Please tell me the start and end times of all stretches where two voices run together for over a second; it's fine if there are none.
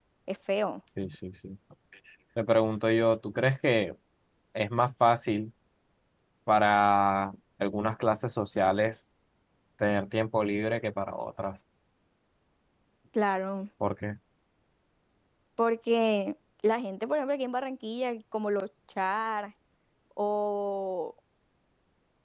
none

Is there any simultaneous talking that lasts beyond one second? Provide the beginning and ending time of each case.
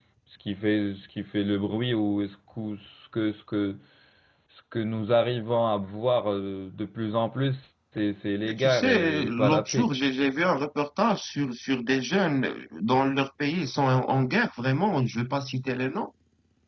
8.4-9.9

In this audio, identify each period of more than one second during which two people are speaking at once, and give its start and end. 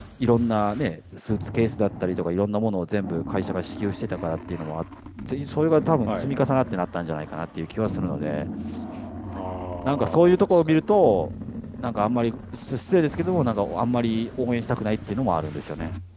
9.8-11.3

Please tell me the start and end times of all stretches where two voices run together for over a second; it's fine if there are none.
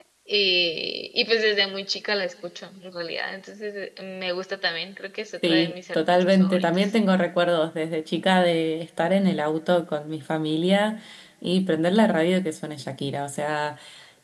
5.5-6.9

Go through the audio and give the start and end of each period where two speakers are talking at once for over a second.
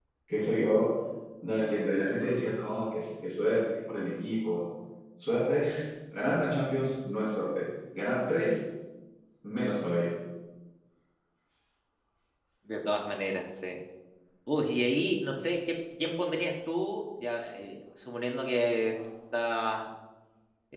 none

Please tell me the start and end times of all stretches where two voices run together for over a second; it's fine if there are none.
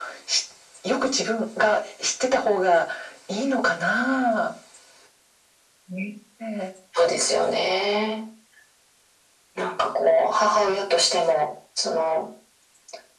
none

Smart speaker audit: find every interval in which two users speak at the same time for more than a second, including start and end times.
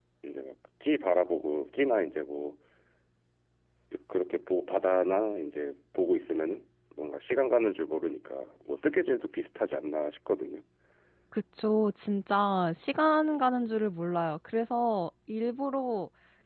none

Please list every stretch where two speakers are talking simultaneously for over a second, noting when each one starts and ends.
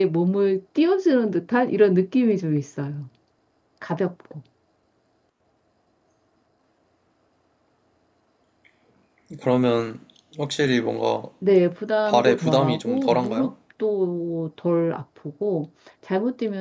12.1-13.5

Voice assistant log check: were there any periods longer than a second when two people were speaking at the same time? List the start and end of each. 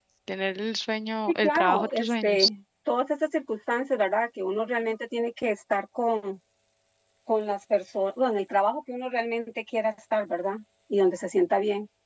1.3-2.5

